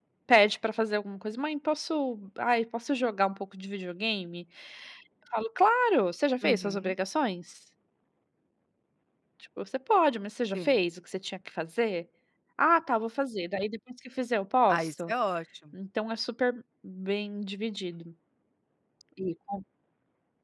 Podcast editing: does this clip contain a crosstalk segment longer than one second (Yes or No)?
No